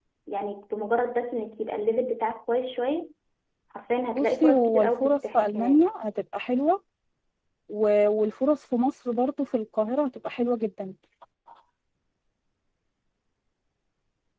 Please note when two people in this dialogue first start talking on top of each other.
4.2 s

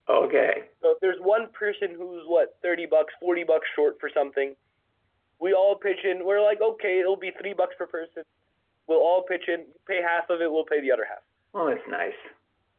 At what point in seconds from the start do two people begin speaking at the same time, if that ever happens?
none

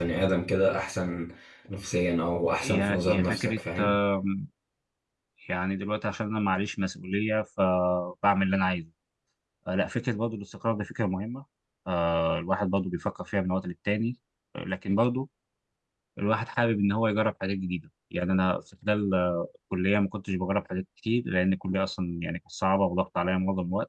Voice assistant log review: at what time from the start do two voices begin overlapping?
2.6 s

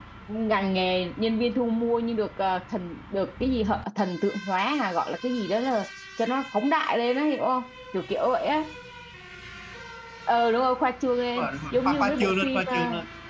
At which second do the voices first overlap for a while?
11.4 s

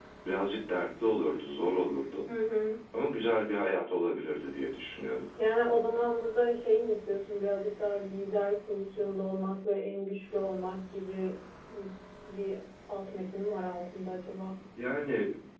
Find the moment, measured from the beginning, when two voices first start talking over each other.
none

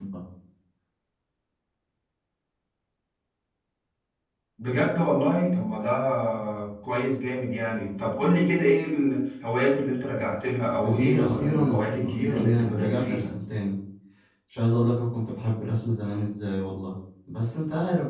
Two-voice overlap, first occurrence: 10.8 s

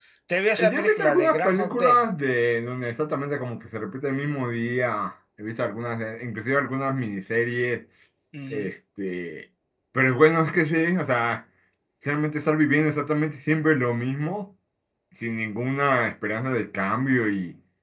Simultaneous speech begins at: 0.6 s

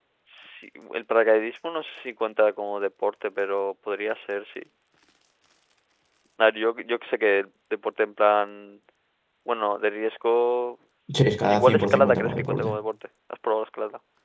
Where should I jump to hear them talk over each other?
11.5 s

